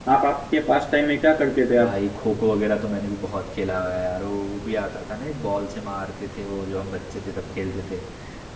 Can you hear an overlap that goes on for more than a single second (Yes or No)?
No